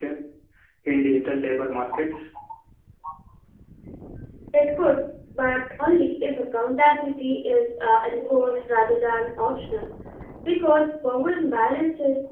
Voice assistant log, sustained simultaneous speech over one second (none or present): none